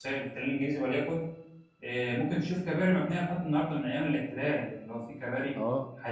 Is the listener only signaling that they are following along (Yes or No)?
No